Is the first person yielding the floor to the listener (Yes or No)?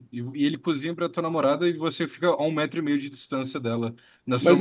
Yes